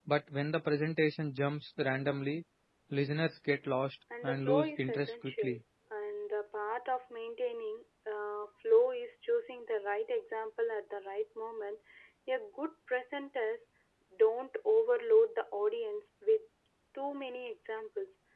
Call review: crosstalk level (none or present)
present